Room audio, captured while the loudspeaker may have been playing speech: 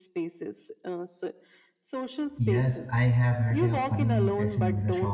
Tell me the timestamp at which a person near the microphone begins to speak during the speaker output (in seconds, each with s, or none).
2.4 s